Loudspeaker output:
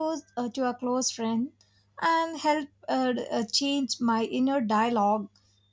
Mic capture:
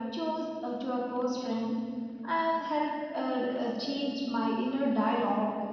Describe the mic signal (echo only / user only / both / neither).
echo only